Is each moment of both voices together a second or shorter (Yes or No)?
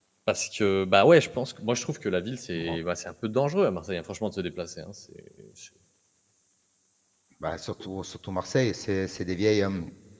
Yes